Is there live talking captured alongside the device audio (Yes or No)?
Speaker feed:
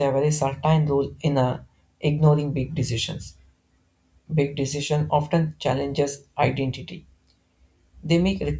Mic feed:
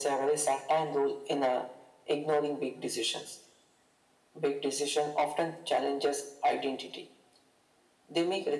No